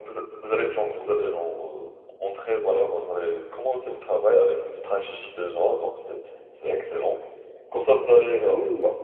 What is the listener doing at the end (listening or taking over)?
listening